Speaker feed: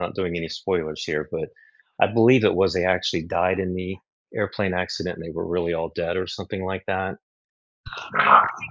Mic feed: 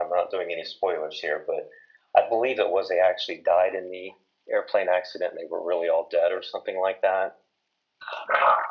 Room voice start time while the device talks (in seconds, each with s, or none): none